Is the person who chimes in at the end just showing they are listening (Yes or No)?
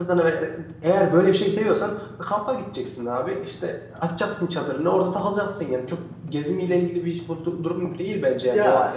No